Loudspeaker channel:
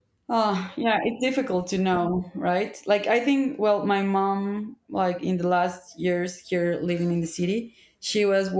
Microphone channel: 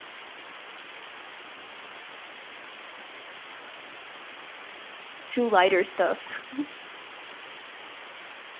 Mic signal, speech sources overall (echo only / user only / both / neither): user only